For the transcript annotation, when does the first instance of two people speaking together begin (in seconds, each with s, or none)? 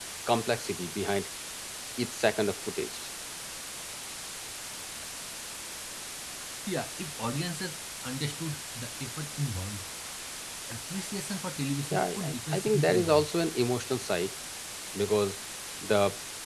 11.9 s